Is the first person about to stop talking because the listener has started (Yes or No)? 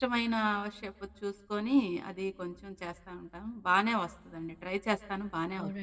Yes